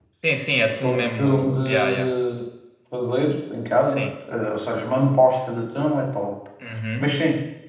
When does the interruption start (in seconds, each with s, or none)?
0.8 s